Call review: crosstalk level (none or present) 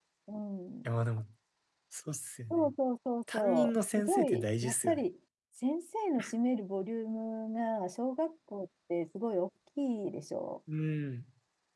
present